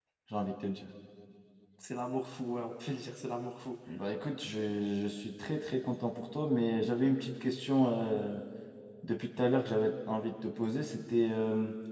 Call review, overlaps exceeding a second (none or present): none